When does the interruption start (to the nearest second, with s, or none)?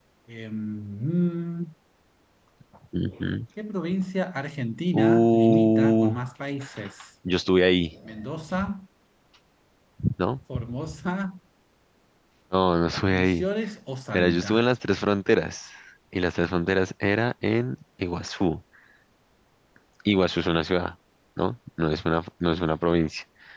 5 s